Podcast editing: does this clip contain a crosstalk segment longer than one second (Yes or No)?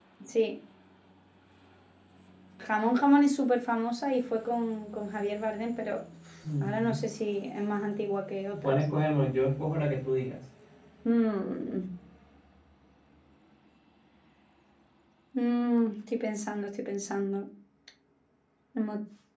No